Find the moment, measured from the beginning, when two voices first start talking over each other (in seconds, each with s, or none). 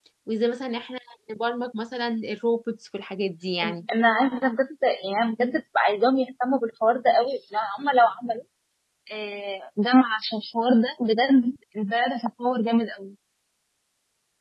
none